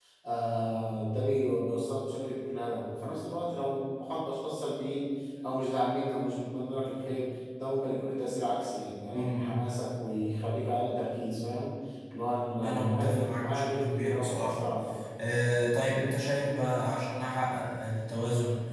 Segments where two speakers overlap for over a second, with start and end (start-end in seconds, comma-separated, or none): 12.6-14.7